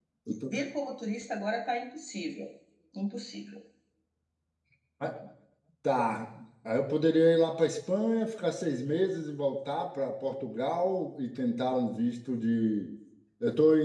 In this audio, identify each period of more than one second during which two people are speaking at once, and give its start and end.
none

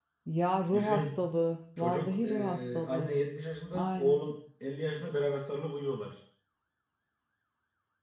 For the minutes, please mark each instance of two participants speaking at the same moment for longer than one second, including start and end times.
1.8-3.1

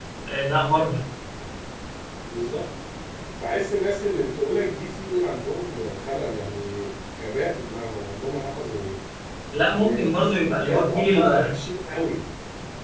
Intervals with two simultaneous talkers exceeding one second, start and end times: 9.7-11.5

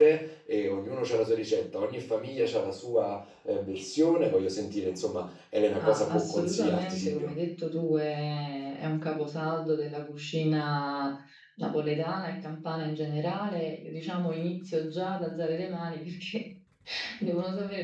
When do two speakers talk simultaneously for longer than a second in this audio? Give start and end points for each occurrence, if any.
5.8-7.3

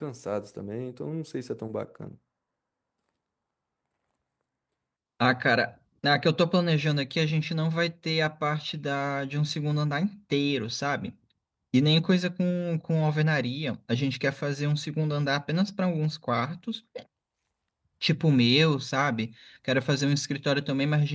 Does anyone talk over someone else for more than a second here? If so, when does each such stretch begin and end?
none

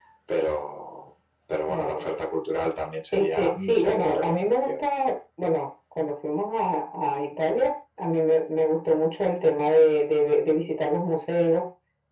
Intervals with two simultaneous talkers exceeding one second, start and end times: 3.1-4.8

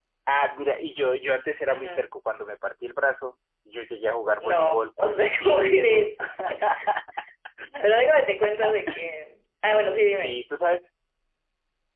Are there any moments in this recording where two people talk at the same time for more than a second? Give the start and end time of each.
4.4-6.1

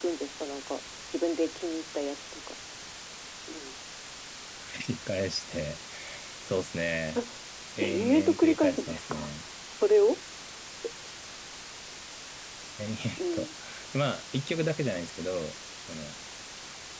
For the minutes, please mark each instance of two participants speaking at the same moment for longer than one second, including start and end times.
7.8-9.3

